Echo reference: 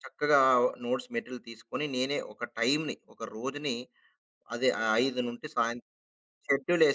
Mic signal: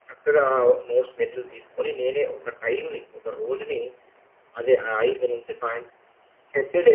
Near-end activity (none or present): none